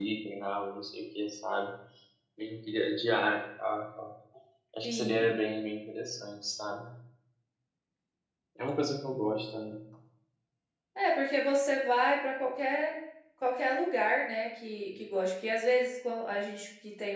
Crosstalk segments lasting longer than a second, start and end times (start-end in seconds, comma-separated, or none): none